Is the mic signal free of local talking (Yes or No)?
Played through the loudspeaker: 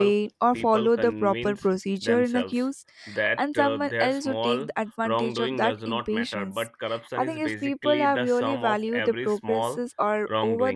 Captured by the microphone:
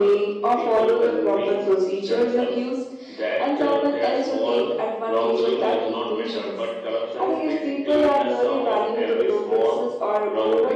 Yes